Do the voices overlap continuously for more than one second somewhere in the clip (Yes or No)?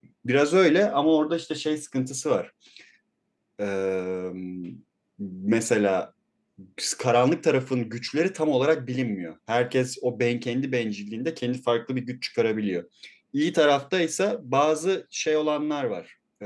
No